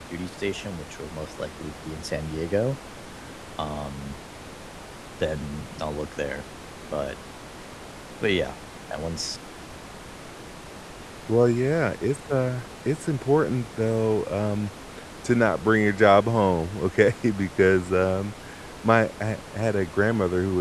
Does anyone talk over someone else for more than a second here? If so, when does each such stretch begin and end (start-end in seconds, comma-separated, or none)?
none